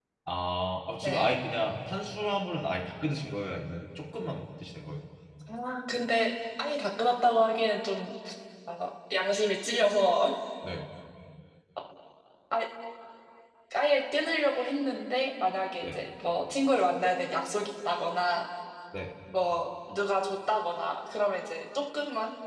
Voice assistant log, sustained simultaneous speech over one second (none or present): none